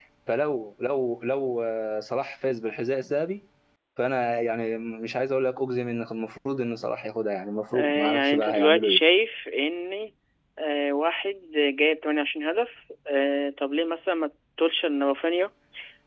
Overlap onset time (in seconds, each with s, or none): 7.7 s